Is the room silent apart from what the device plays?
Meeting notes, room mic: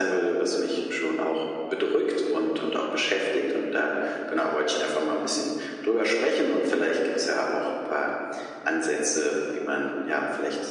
Yes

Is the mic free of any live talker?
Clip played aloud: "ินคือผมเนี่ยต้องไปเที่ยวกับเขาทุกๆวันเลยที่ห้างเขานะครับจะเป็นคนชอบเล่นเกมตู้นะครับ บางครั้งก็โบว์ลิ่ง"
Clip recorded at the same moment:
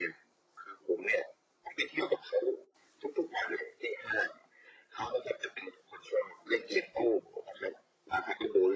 Yes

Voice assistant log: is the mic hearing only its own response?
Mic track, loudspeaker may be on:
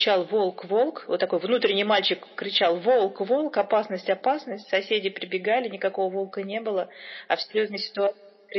Yes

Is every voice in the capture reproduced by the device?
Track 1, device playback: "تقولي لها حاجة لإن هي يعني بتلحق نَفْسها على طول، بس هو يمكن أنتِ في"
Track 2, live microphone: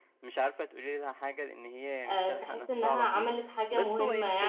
No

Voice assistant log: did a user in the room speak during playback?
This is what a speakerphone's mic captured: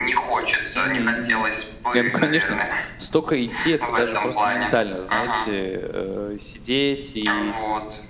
Yes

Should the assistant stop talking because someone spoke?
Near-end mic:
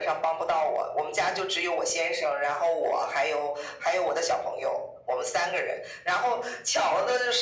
No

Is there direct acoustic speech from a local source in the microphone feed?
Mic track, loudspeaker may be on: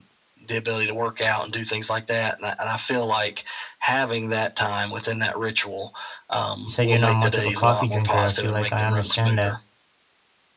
Yes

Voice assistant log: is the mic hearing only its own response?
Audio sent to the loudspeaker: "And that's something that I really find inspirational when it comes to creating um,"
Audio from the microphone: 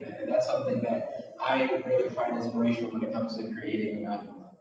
Yes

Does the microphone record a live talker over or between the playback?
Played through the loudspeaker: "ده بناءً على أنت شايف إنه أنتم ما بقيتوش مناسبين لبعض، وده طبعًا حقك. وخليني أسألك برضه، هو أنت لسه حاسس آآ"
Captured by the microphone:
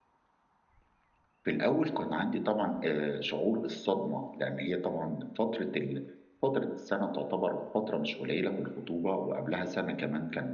Yes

